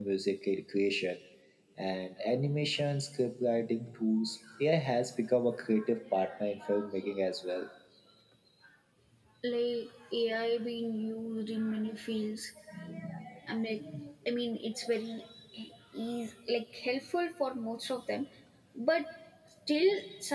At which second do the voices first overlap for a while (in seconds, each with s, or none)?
none